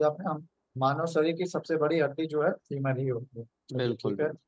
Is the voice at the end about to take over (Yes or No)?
Yes